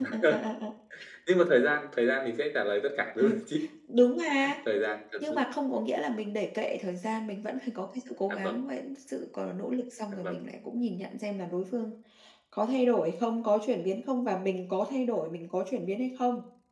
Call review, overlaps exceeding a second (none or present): none